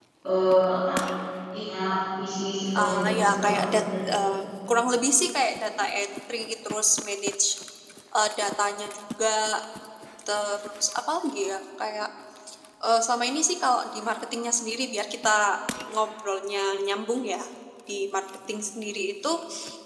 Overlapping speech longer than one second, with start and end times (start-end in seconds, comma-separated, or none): 2.8-4.1